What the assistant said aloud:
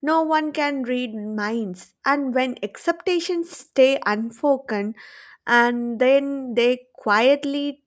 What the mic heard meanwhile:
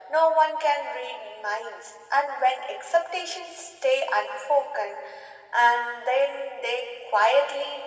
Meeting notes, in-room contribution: none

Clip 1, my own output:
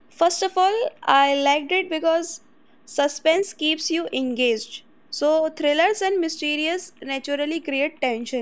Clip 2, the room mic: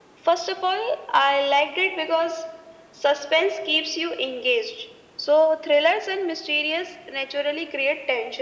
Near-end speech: none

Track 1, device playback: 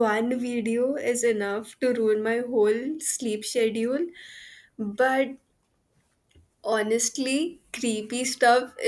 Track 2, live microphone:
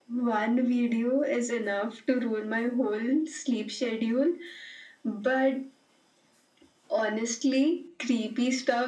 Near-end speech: none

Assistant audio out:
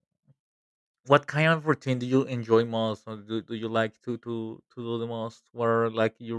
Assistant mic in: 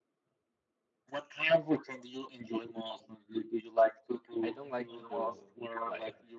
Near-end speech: present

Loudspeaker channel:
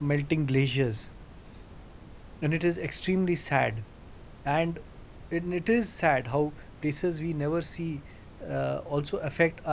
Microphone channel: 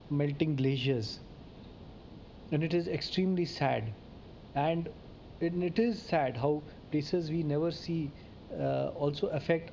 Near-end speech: none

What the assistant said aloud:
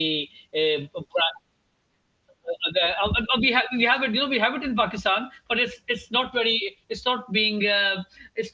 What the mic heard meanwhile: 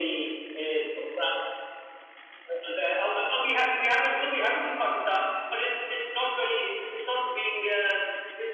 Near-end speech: none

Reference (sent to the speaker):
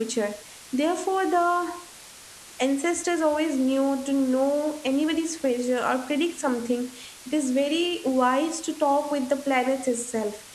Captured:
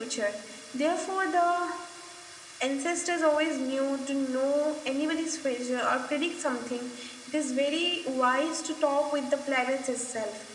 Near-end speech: none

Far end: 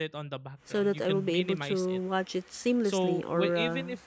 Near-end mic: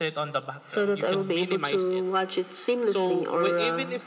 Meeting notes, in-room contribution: none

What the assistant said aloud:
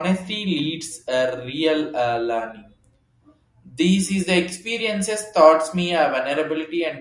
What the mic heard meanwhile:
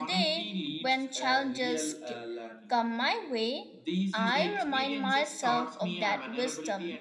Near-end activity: present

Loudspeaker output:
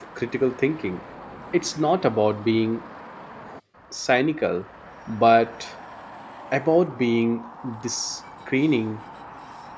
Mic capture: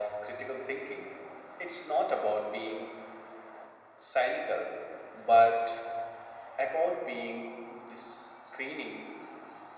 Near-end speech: none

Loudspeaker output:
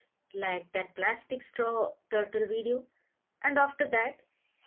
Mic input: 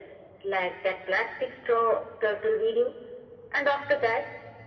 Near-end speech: none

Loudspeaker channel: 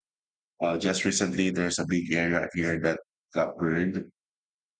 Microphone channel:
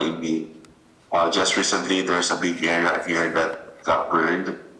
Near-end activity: none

